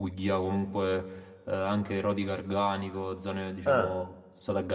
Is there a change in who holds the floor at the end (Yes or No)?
No